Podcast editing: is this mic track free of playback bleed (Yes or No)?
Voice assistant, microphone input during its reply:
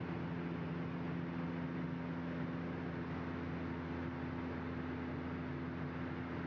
Yes